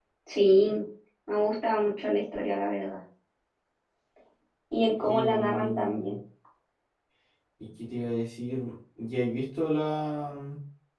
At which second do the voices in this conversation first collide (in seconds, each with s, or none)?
5.0 s